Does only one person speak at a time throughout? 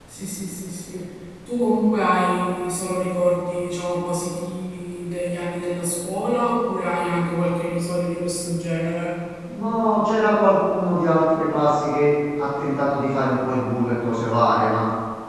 Yes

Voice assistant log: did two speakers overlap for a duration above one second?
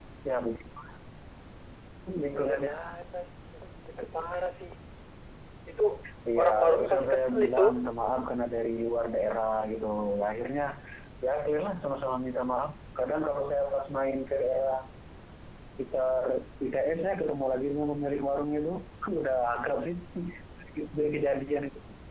Yes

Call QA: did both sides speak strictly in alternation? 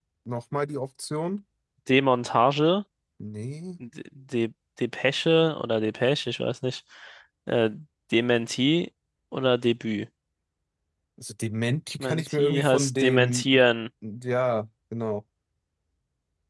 No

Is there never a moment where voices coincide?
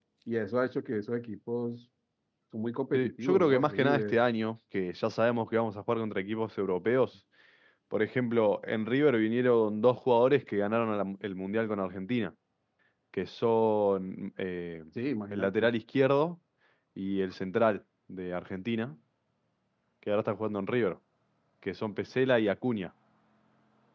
No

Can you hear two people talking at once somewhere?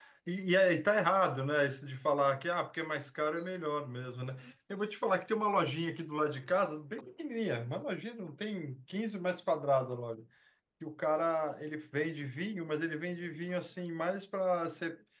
No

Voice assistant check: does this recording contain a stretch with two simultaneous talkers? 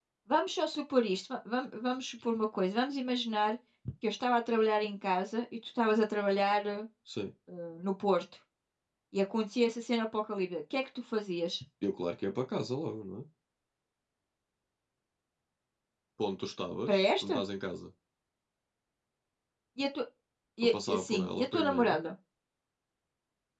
Yes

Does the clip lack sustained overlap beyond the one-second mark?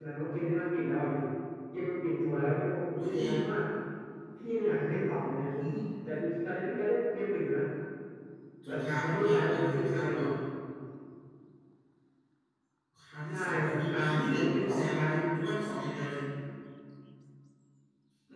No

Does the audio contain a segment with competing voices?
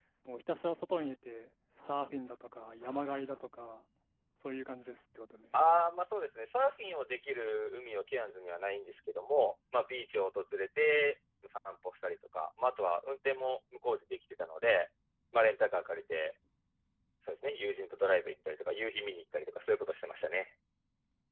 No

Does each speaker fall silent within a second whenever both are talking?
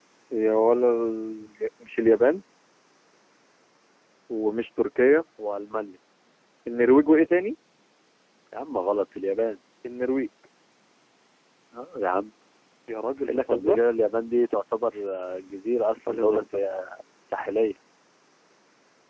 Yes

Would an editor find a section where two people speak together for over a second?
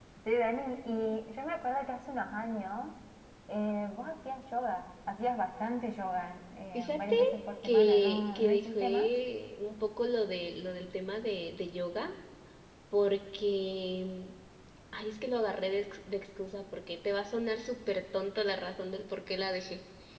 Yes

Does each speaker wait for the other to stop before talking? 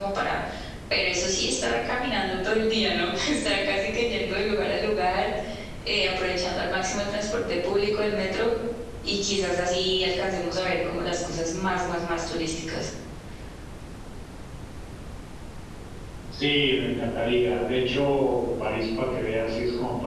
Yes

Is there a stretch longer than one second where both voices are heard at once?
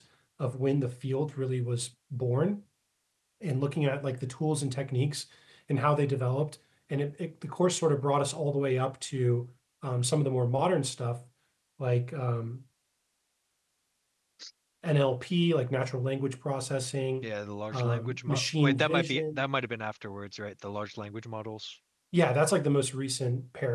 Yes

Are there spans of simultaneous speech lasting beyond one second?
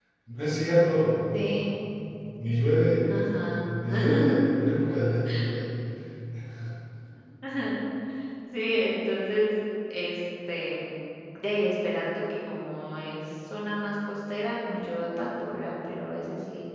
No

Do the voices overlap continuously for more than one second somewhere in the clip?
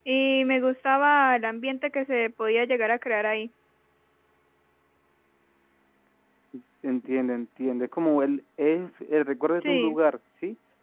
No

